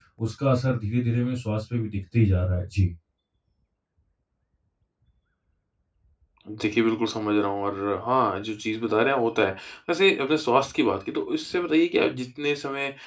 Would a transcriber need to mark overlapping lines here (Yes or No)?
No